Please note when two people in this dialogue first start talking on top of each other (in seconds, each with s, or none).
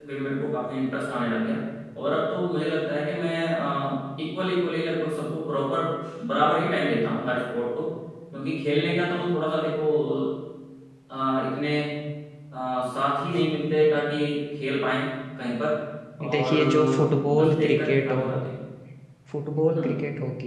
16.3 s